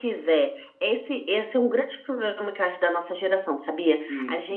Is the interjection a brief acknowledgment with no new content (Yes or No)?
Yes